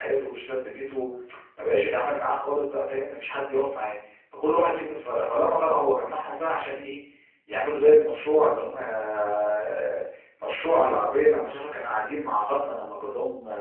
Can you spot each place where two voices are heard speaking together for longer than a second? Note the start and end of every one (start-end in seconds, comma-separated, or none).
none